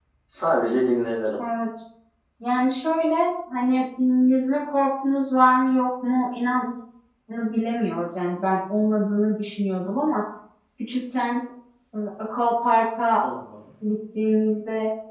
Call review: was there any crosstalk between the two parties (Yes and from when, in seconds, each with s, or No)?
No